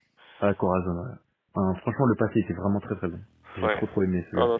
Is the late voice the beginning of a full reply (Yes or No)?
Yes